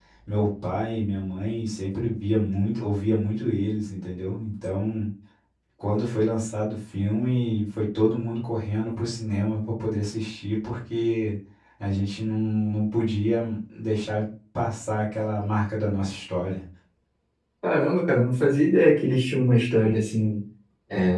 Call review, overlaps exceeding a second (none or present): none